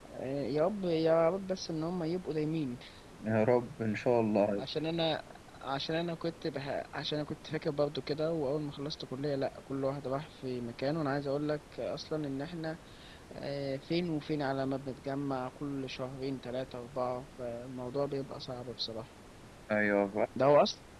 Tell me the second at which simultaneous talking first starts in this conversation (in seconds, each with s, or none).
none